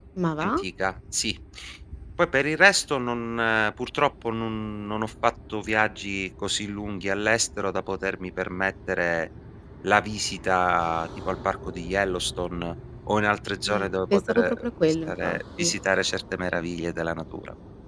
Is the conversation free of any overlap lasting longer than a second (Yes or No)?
No